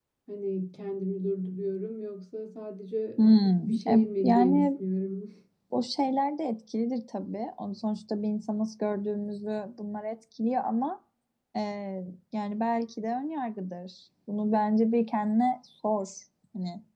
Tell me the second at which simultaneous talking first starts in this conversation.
3.2 s

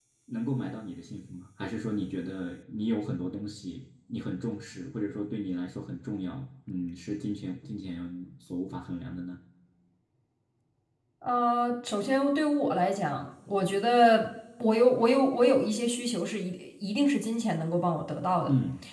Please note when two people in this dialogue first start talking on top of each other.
none

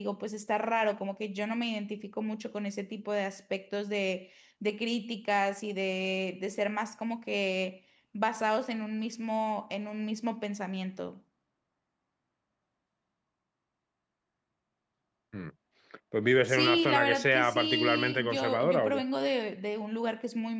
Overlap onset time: 16.5 s

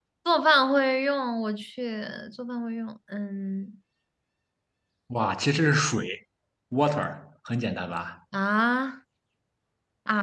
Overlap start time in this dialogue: none

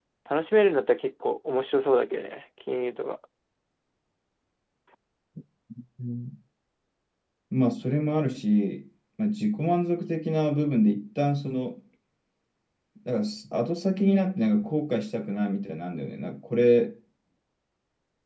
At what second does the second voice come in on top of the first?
none

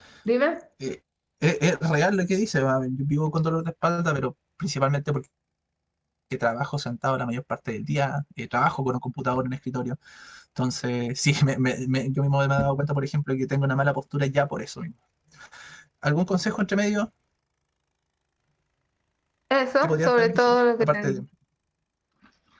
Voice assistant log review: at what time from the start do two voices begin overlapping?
19.8 s

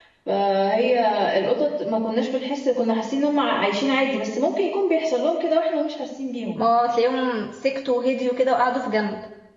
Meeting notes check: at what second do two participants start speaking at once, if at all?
none

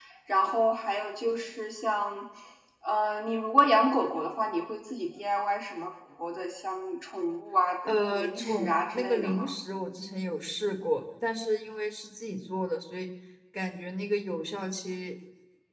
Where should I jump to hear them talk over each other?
7.9 s

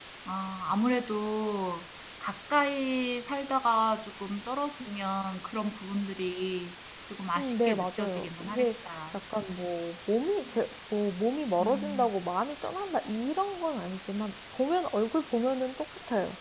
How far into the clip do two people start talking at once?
7.4 s

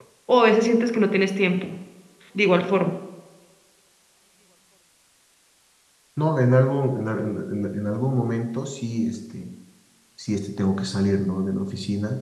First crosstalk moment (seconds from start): none

